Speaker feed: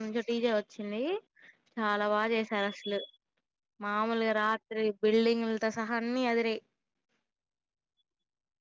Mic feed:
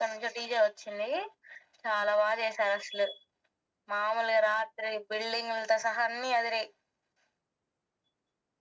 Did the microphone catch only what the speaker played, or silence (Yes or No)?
Yes